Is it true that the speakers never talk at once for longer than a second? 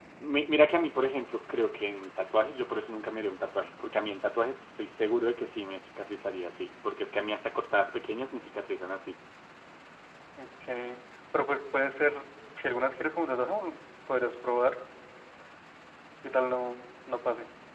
Yes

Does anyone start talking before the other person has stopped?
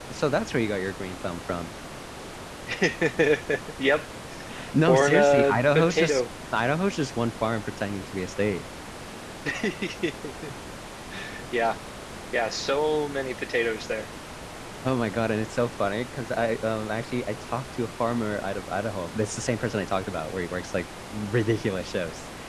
Yes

